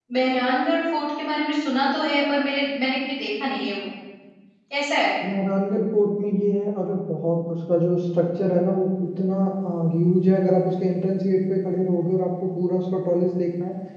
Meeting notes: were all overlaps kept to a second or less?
Yes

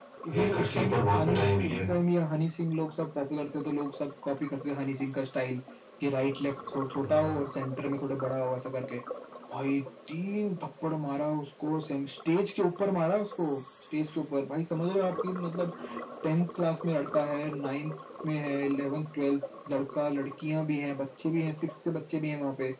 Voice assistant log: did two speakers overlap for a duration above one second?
Yes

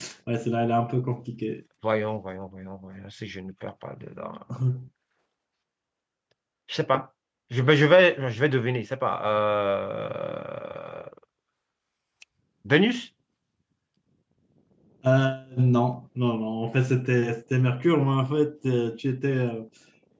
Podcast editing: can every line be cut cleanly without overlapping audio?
Yes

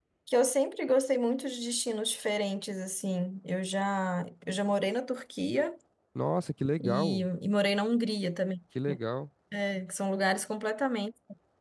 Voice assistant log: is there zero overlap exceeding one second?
Yes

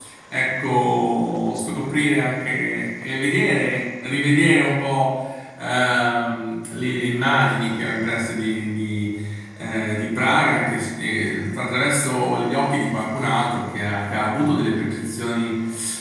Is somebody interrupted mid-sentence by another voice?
No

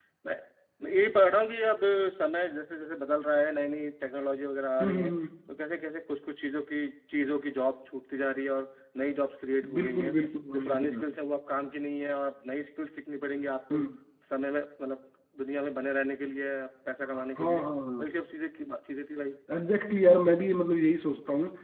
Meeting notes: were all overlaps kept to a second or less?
Yes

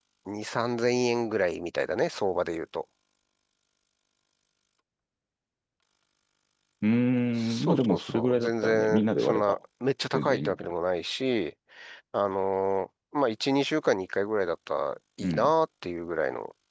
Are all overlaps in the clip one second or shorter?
No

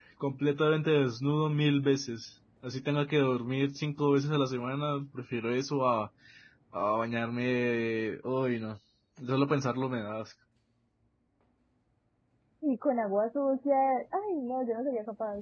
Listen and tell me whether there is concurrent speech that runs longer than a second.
No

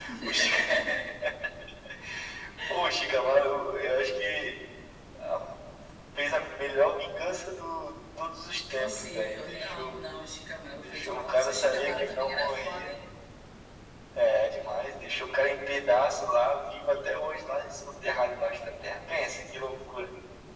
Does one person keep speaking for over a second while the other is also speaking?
Yes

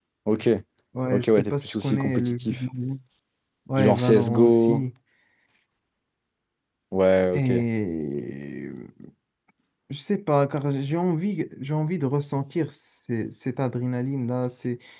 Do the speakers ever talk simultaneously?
Yes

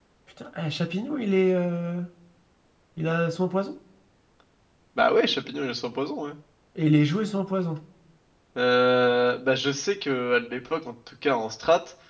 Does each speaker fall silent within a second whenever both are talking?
Yes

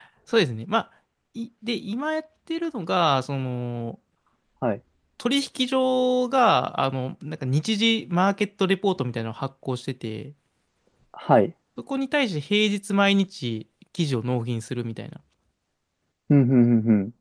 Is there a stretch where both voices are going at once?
No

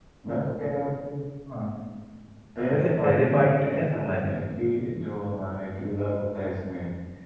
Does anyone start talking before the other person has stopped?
Yes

